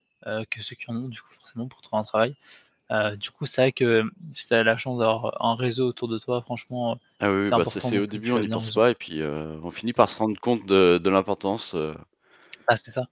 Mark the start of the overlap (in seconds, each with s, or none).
7.4 s